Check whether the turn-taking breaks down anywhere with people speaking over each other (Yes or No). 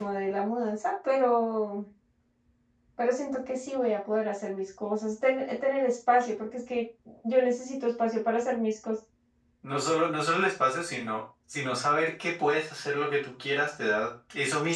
No